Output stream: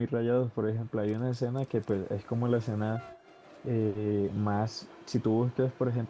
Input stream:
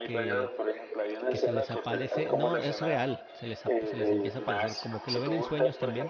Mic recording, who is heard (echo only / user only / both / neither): both